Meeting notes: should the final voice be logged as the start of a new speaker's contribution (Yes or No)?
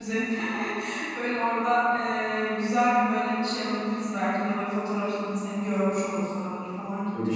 Yes